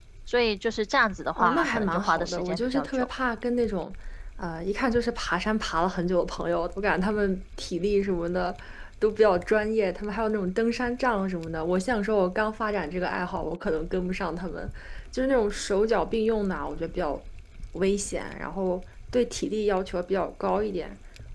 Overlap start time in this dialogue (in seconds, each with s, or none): 1.4 s